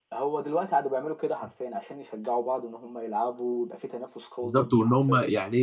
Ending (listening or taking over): taking over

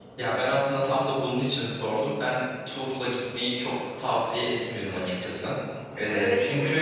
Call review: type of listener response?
listening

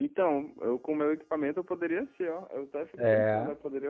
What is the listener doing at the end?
listening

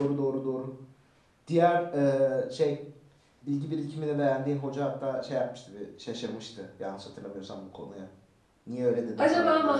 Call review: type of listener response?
taking over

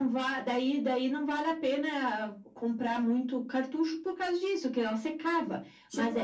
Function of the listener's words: taking over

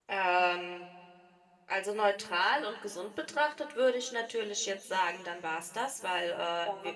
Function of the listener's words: listening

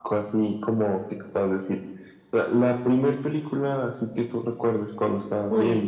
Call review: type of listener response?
taking over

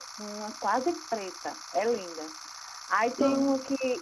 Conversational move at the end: listening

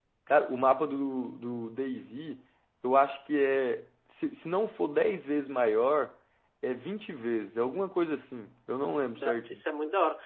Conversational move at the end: taking over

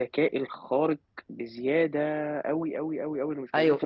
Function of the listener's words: taking over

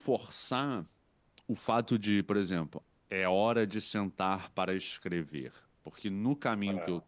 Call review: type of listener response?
listening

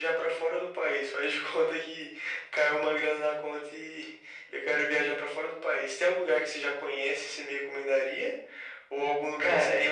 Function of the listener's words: listening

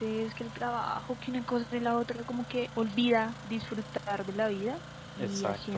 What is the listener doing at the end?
listening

